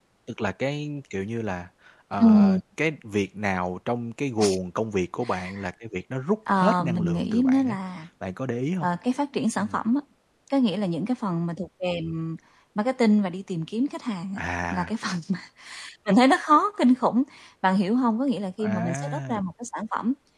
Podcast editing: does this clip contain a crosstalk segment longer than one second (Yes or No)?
Yes